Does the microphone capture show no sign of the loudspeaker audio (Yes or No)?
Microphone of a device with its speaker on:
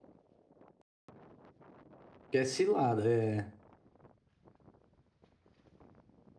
Yes